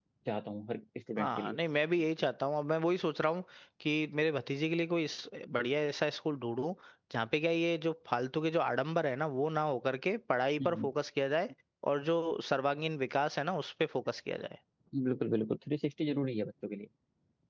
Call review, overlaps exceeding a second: none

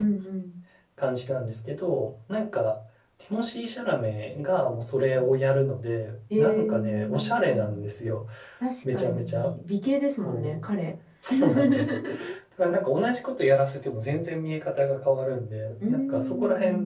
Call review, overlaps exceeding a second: present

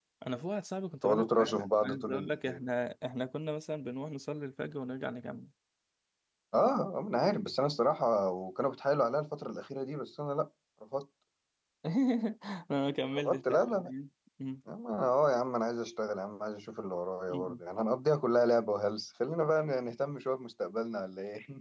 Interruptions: present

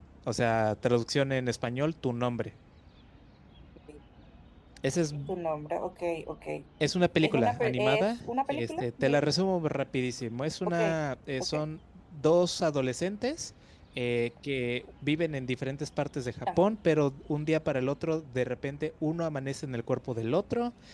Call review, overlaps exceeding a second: present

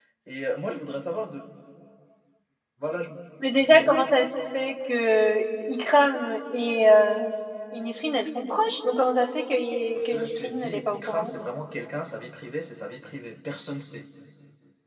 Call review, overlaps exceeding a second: present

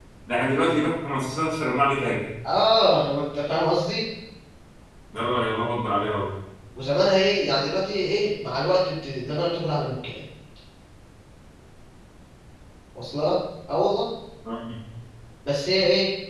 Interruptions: none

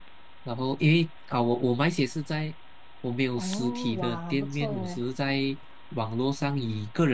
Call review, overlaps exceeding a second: present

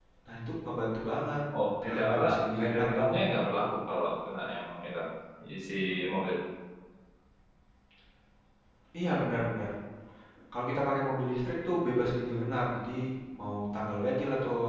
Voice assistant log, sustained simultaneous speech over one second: present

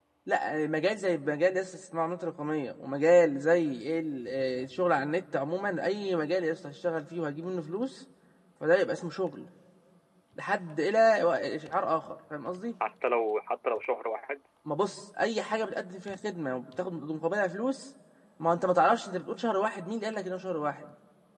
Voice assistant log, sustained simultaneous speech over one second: none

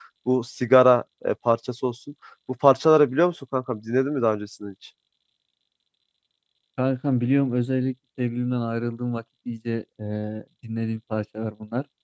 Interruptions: none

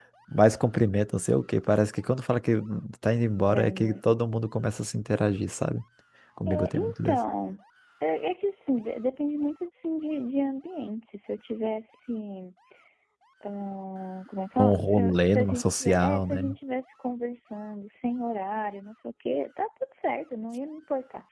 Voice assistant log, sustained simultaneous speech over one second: present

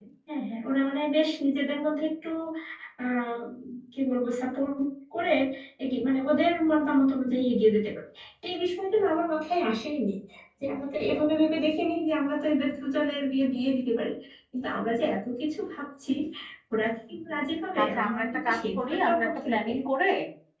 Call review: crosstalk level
present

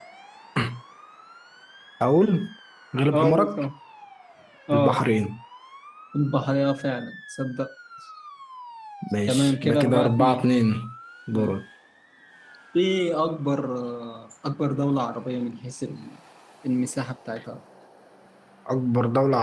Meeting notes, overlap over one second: present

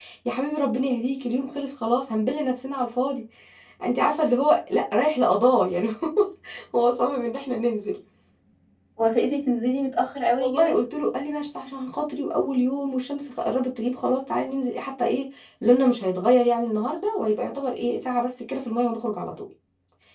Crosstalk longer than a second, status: none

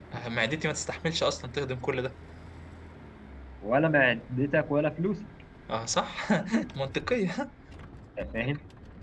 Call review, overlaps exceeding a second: none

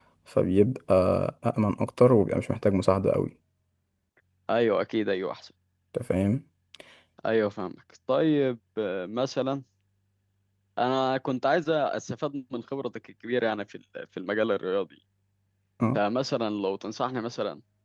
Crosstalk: none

